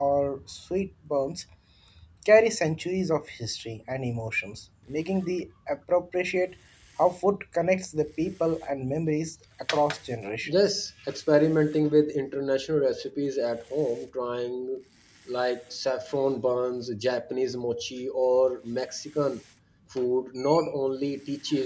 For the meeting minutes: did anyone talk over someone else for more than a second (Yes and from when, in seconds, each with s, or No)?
No